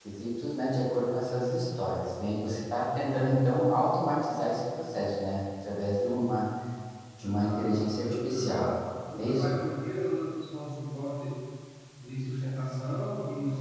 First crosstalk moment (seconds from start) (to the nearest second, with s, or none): 7 s